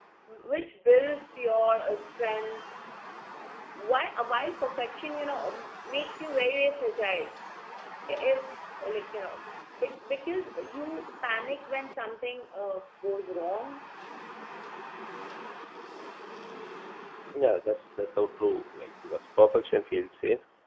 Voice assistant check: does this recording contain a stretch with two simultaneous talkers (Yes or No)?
No